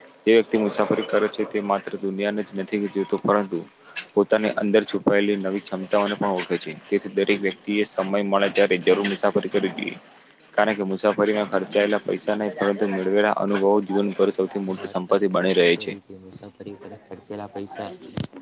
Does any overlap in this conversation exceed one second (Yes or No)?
Yes